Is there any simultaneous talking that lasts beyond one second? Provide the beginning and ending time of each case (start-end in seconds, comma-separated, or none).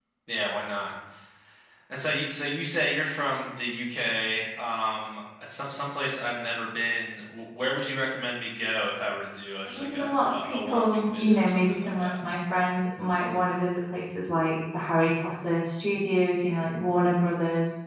9.7-12.1